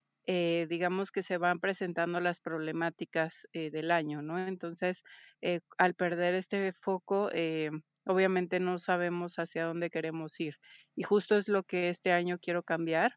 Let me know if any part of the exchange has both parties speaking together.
No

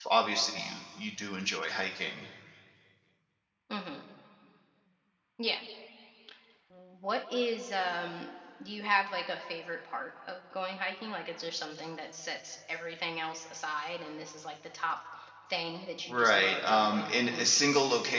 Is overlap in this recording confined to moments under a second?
No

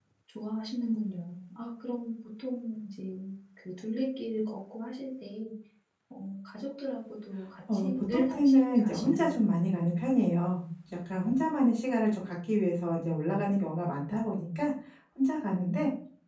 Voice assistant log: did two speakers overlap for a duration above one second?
Yes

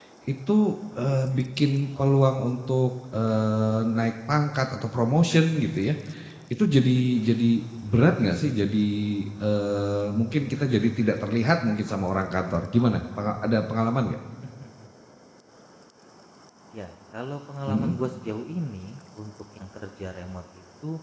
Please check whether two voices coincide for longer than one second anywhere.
No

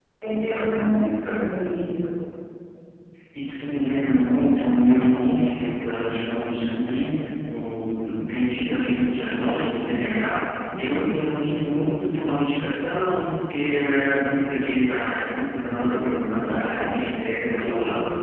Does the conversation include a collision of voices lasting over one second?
Yes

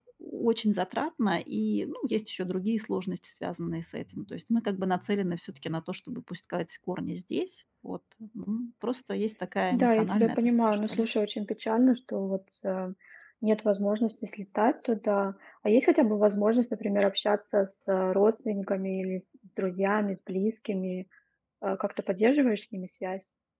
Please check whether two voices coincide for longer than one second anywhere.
Yes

